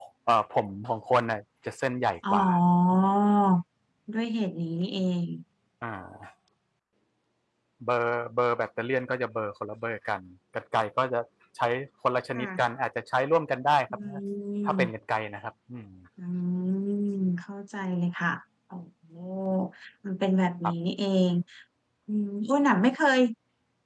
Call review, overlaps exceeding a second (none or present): none